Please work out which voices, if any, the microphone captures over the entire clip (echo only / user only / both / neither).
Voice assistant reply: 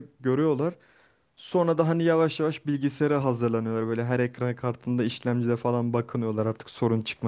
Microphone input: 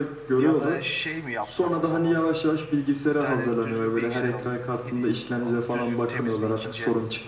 both